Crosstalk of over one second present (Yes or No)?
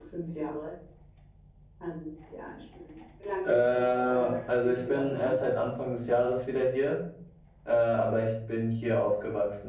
Yes